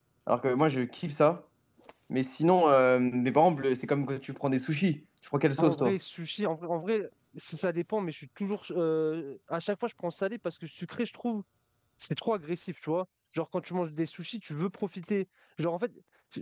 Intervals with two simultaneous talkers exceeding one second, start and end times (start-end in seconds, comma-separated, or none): none